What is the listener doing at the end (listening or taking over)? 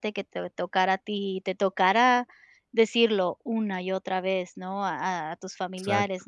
listening